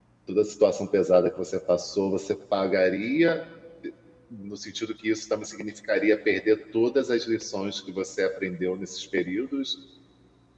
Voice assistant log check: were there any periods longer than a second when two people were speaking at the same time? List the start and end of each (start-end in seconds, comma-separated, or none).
none